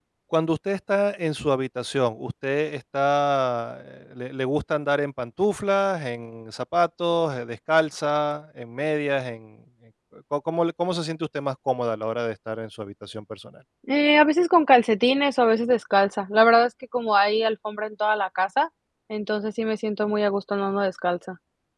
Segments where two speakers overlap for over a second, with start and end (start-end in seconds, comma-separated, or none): none